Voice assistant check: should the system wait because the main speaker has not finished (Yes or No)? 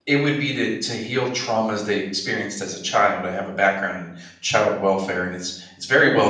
Yes